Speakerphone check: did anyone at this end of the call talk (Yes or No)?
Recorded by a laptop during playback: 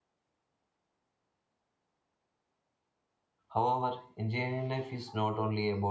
Yes